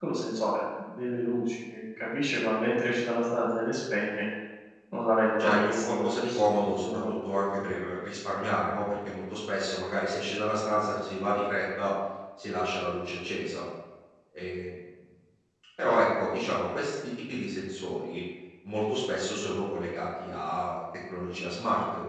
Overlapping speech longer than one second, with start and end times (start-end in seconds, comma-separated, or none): 5.4-7.0